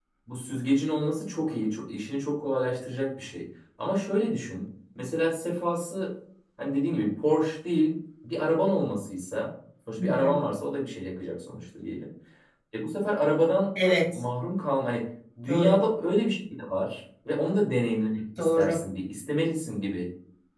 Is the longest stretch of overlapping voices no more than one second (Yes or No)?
Yes